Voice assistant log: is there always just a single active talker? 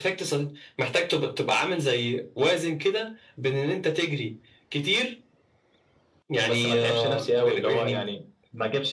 No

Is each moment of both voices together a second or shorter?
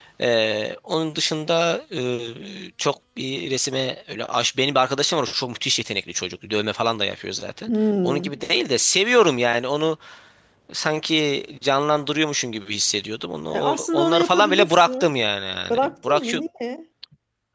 No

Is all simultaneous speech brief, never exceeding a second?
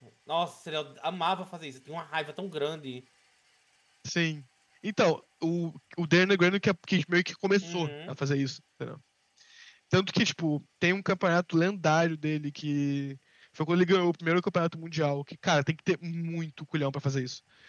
Yes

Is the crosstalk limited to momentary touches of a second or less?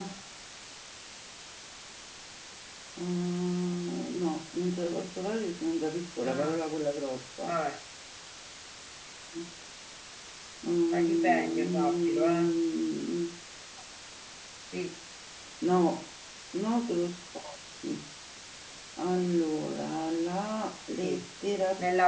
No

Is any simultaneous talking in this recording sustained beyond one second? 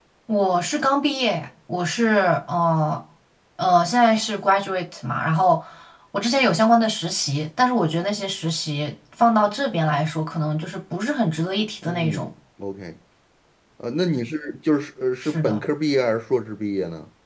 No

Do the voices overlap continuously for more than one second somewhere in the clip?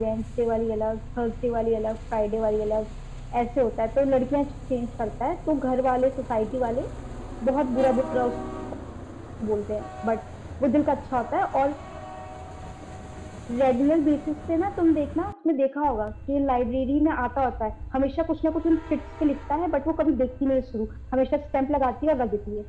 No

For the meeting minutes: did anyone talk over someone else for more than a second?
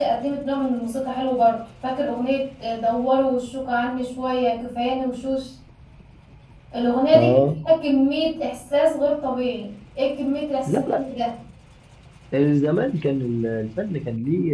No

